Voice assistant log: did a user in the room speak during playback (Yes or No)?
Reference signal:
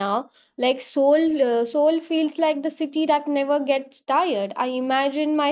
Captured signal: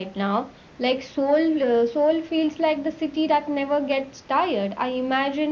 No